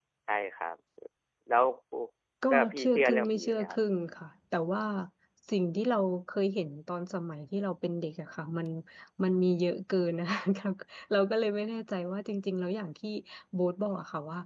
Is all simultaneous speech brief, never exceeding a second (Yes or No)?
No